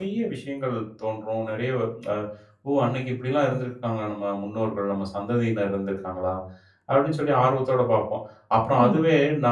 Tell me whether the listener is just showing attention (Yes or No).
Yes